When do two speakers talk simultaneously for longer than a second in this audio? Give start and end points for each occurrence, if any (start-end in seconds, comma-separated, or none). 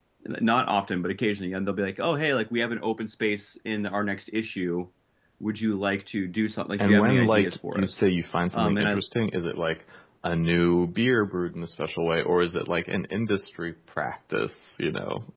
6.8-8.0